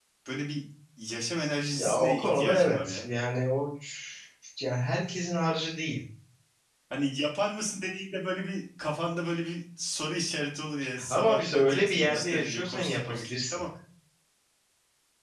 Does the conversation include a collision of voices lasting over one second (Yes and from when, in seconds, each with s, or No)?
Yes, from 1.8 s